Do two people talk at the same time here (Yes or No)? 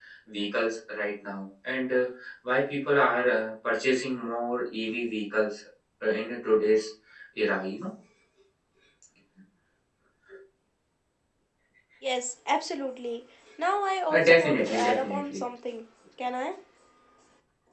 Yes